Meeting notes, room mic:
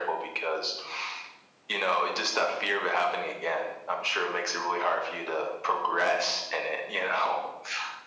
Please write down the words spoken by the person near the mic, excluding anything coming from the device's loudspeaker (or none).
none